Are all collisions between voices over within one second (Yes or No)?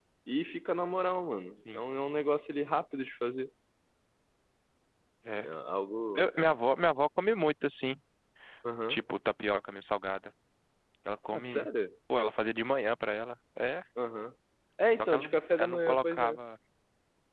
No